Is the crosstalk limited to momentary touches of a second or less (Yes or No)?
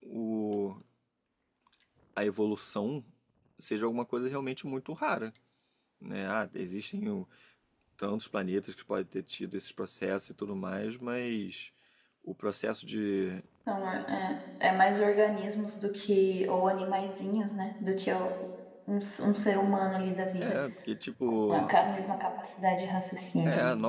Yes